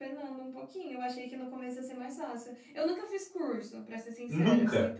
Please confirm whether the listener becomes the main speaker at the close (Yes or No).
No